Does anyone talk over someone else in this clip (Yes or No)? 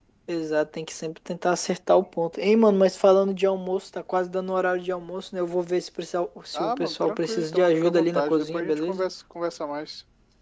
Yes